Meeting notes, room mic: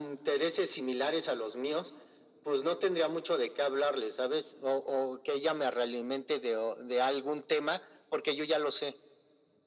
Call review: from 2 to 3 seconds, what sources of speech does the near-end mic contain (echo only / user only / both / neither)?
echo only